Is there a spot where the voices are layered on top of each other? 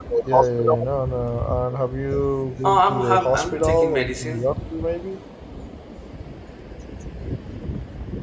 Yes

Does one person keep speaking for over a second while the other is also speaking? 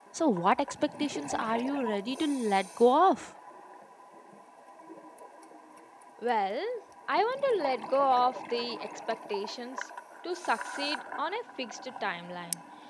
No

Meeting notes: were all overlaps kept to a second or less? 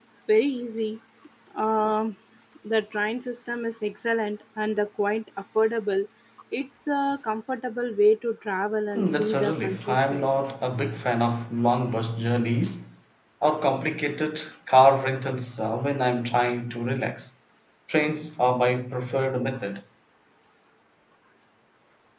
No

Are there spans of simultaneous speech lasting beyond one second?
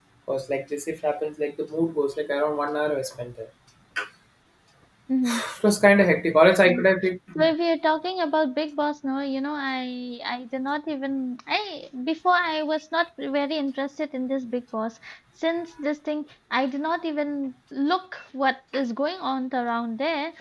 No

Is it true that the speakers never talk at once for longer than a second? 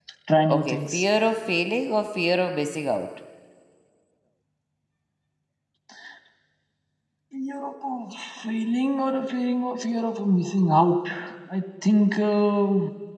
Yes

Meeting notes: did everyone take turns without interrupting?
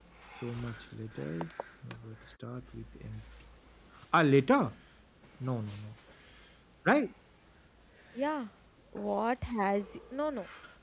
Yes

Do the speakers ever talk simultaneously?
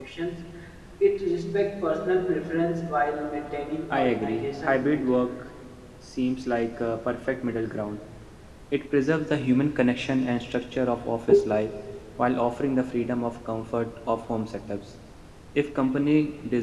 Yes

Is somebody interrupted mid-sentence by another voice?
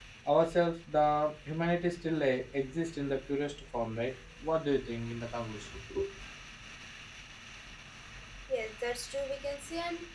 No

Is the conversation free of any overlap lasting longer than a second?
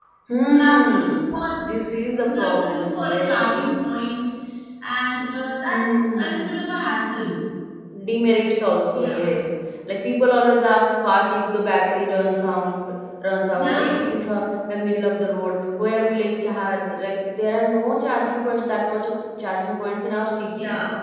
No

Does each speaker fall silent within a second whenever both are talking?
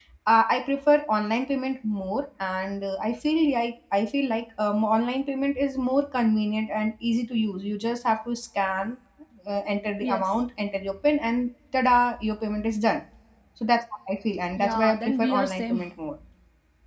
No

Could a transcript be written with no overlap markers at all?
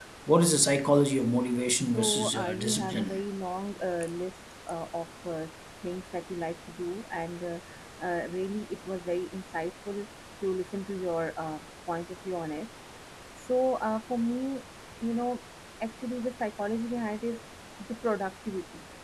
No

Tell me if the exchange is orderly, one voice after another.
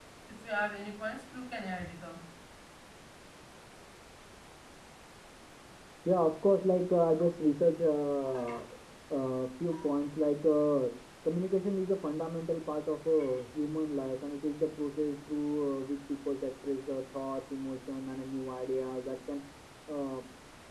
Yes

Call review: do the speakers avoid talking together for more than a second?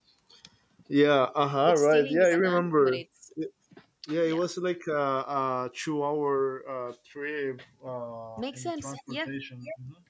No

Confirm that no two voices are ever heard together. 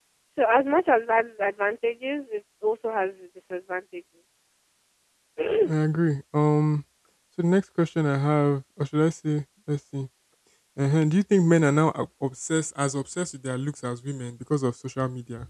Yes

